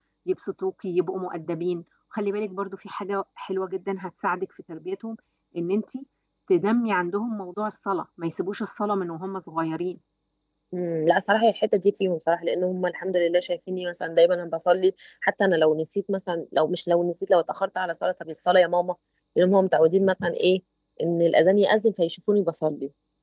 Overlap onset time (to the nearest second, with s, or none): none